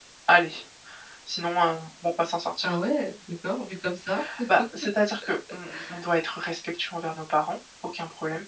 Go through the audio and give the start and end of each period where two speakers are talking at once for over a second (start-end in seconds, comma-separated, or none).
none